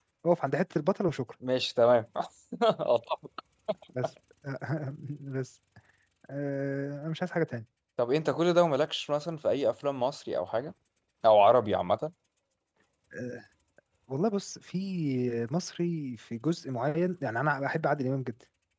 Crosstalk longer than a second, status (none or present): none